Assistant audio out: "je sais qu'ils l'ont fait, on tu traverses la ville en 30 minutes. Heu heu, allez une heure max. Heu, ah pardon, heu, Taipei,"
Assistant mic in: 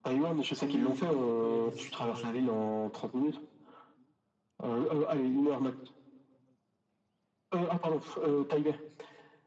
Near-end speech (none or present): present